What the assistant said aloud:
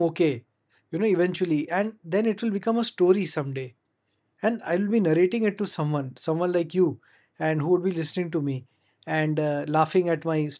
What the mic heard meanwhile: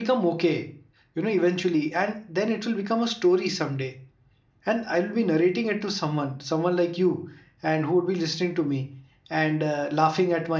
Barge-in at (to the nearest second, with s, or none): none